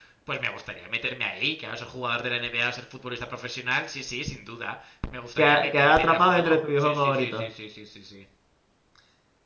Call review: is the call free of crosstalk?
No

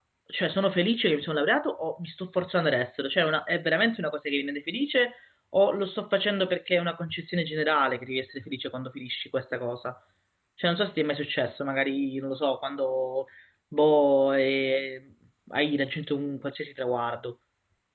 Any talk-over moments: No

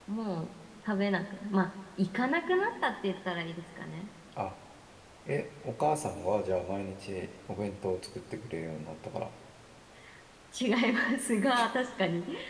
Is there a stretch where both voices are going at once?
No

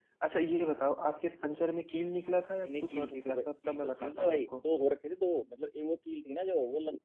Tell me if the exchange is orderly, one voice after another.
No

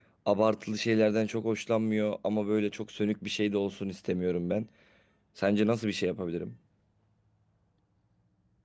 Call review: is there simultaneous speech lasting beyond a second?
No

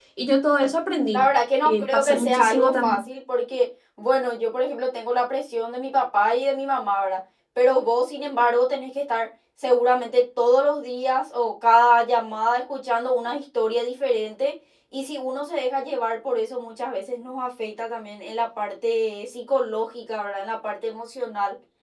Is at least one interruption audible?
Yes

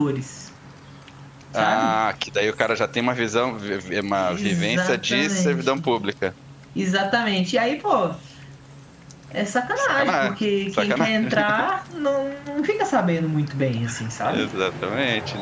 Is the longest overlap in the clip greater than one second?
Yes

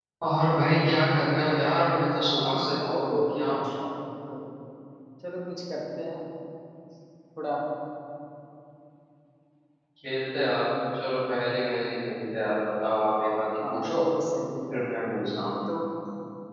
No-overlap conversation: No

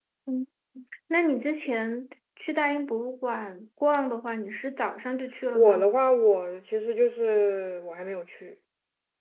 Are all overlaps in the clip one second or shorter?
Yes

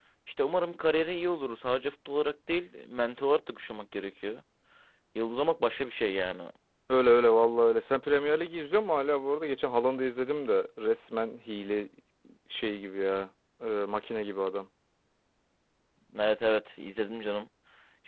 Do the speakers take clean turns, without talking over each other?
Yes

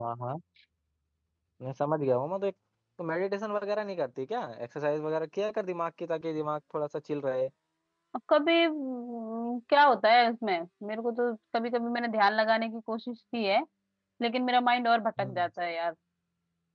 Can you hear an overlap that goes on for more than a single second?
No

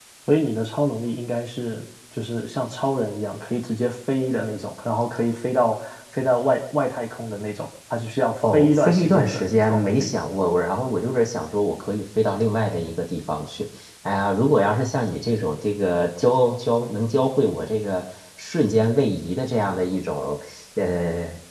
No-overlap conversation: No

